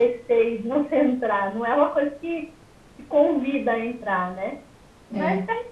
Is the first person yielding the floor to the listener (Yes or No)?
No